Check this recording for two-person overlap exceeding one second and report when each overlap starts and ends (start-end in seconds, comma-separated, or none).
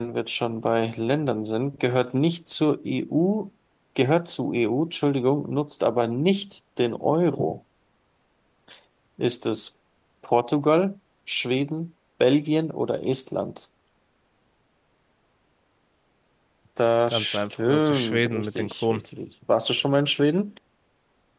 17.1-19.0